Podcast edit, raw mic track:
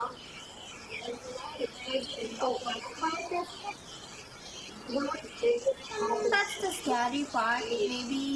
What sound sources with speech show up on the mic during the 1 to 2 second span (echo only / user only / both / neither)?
echo only